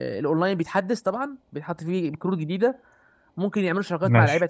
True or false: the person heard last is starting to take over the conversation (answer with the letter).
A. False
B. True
A